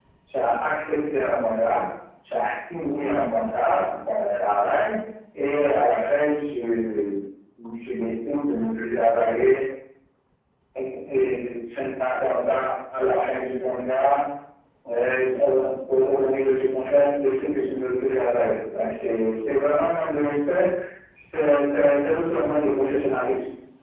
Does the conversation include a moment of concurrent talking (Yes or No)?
No